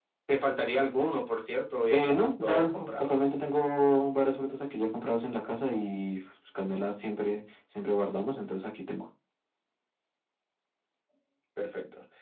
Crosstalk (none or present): present